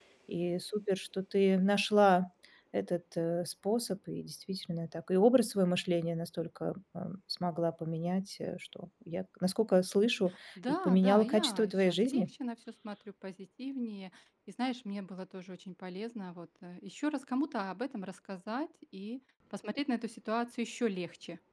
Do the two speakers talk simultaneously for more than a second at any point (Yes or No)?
Yes